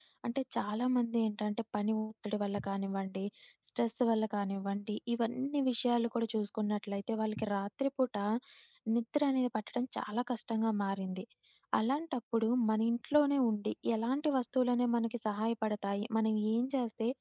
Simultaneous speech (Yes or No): No